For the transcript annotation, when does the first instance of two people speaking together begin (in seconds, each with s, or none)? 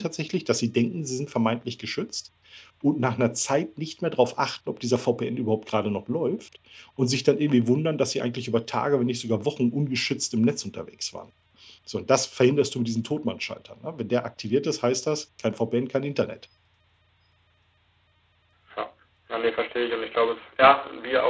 none